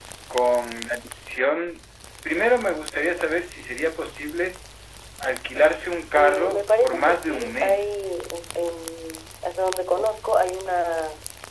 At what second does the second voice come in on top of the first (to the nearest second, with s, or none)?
6 s